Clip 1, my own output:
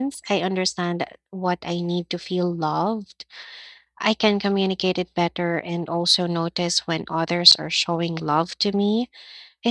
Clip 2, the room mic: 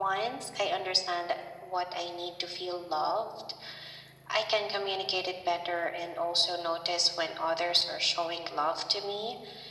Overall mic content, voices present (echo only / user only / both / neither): echo only